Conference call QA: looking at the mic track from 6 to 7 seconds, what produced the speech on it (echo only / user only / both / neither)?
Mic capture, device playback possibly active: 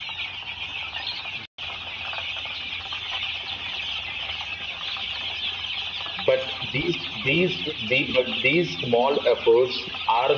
user only